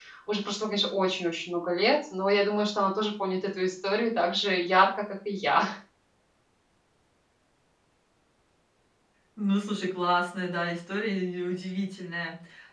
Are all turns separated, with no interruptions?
Yes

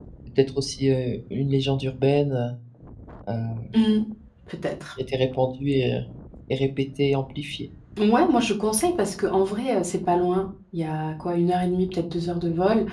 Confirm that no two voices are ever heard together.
Yes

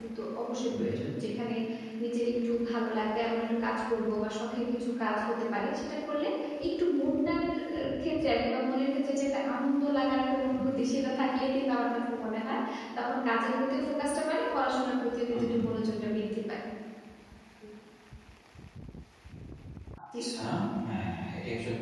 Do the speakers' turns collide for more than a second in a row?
No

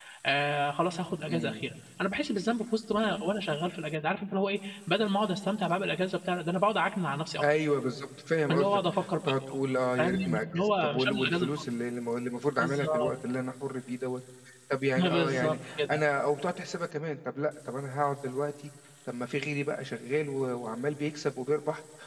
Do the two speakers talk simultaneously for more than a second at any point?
Yes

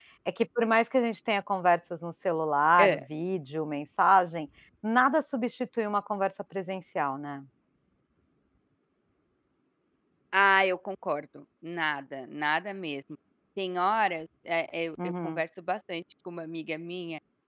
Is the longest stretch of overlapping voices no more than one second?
Yes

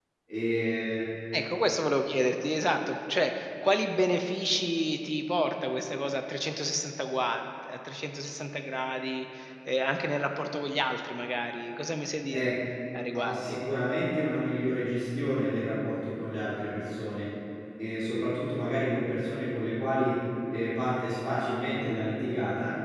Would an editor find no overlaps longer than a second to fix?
Yes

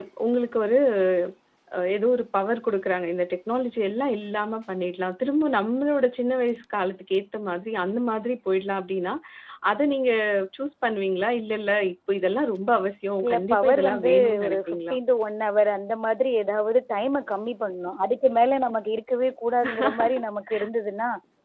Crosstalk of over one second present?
Yes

